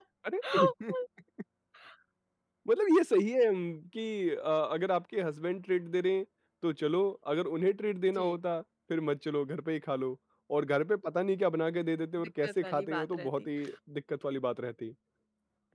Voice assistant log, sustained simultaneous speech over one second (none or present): present